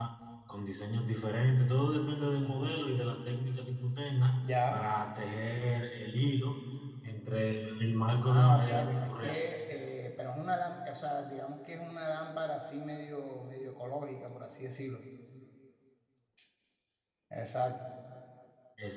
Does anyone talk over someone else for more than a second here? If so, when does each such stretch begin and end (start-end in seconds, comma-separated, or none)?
8.2-9.6